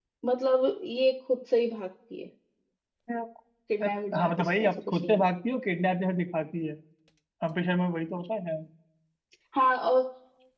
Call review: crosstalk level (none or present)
present